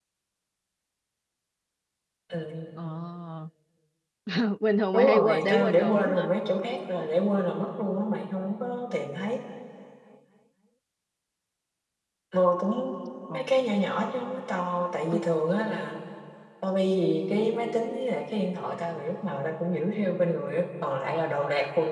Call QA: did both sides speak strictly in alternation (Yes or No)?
No